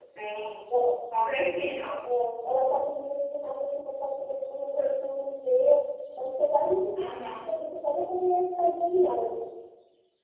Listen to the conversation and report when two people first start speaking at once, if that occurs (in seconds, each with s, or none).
none